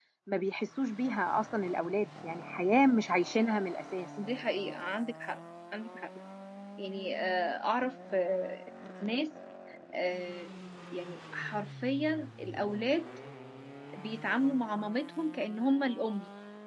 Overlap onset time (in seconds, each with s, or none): none